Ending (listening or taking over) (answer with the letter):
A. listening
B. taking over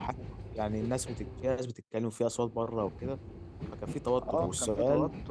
B